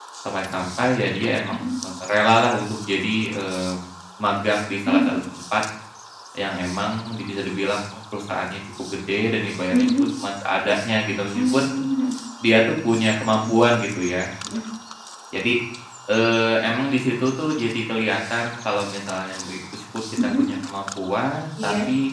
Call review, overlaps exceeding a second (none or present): none